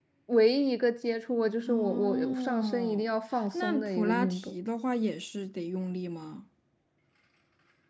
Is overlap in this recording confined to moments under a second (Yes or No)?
No